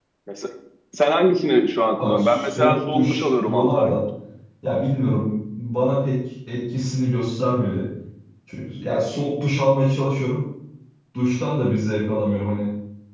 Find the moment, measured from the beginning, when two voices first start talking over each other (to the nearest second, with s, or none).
2 s